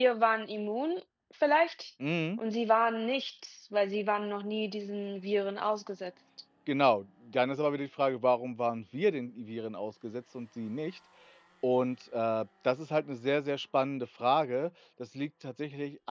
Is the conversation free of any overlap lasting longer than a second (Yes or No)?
Yes